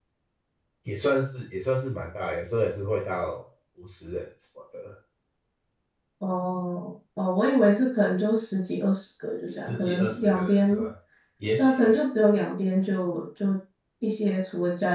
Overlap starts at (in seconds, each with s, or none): 9.5 s